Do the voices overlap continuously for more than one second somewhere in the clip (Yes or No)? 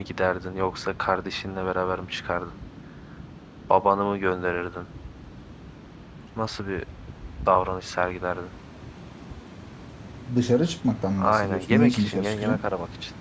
Yes